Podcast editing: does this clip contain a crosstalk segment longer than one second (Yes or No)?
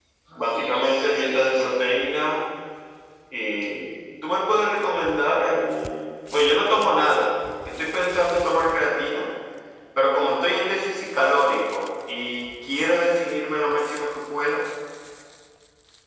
Yes